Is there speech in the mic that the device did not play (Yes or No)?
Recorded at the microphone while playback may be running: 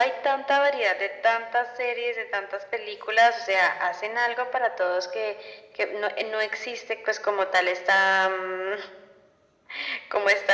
No